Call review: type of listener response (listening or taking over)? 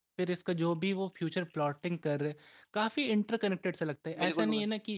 listening